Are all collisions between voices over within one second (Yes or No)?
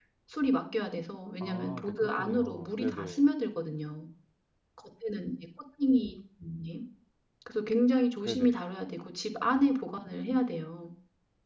No